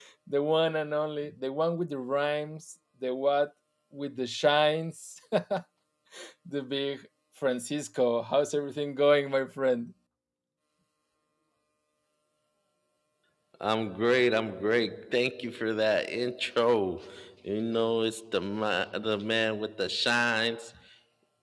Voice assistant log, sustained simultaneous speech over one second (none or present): none